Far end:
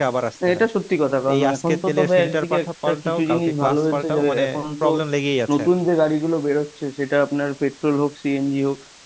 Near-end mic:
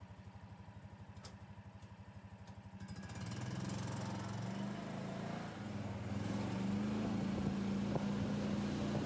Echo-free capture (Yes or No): Yes